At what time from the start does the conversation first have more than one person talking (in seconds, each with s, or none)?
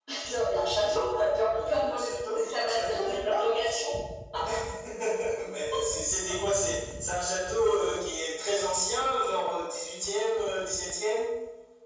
1.5 s